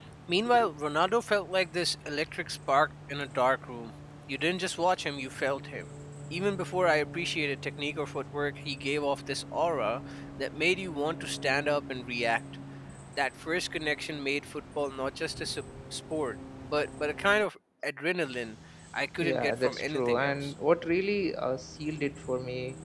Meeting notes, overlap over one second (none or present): present